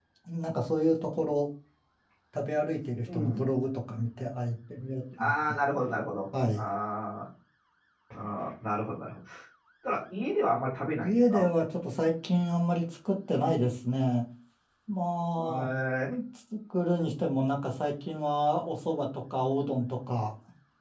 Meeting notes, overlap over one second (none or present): none